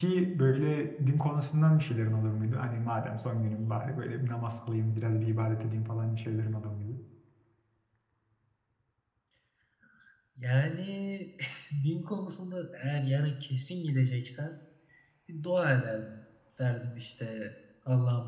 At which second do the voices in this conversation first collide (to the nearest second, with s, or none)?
none